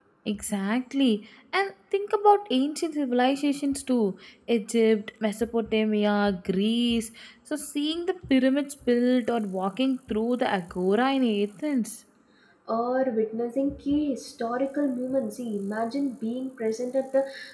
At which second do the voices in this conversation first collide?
none

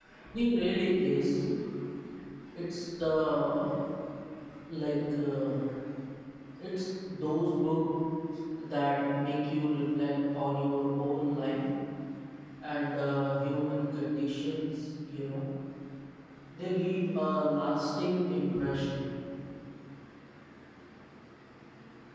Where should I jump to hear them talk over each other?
none

